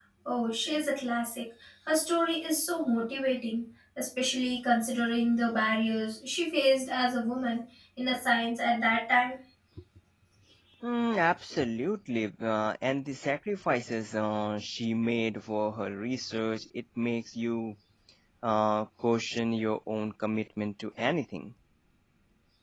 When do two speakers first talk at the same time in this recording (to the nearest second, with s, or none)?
none